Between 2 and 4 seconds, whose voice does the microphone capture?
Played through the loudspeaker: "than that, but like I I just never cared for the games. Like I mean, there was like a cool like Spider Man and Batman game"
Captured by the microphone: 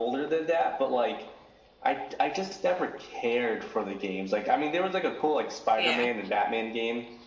echo only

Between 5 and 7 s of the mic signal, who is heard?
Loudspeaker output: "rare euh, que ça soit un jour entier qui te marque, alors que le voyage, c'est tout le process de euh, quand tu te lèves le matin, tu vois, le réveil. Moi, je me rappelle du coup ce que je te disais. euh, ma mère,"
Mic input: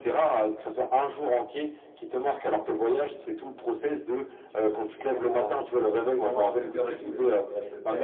both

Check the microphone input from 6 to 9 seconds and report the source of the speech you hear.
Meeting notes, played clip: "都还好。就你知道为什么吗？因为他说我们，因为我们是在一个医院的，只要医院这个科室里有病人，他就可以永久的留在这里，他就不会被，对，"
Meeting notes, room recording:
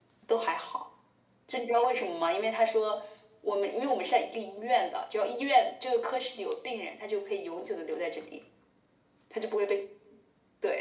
echo only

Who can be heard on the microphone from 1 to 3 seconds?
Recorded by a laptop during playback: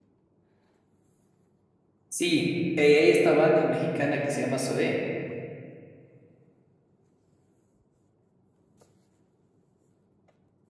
user only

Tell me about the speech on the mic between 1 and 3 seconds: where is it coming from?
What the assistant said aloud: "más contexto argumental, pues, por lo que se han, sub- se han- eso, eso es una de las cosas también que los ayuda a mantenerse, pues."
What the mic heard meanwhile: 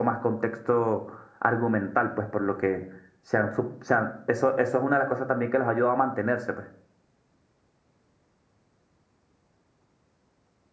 echo only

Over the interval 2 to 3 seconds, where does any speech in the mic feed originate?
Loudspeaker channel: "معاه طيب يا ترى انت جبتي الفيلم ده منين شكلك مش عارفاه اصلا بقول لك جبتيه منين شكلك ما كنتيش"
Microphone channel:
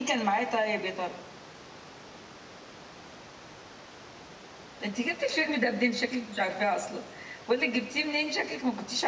neither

